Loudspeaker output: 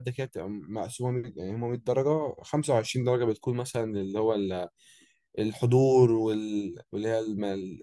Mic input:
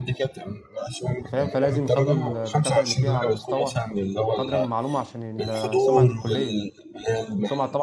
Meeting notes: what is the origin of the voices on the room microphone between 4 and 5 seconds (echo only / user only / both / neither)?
both